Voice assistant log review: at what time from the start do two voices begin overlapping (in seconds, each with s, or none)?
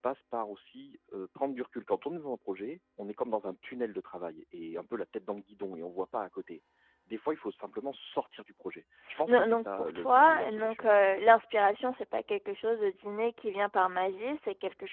9.1 s